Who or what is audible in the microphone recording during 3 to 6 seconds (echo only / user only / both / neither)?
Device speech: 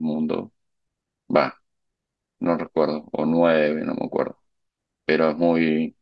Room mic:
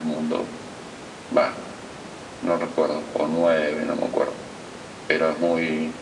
echo only